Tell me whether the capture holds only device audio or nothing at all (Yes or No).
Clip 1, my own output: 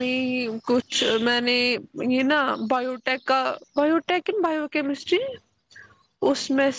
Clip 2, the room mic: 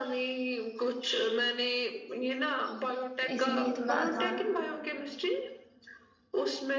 No